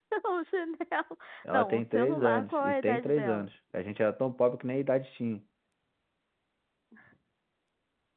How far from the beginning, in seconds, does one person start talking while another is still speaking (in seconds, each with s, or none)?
1.4 s